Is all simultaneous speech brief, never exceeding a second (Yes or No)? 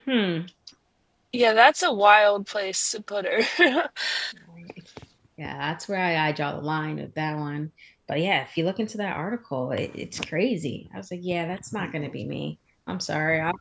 Yes